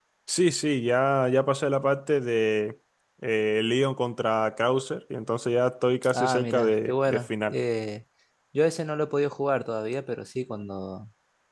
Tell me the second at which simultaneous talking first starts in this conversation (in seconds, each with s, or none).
6.0 s